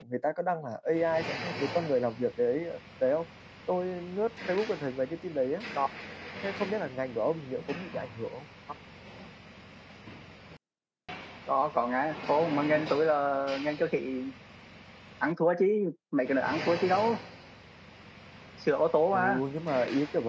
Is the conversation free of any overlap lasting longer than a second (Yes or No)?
Yes